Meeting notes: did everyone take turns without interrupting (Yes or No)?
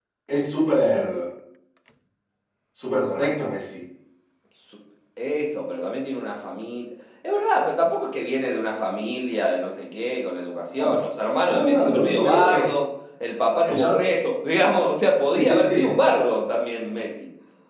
No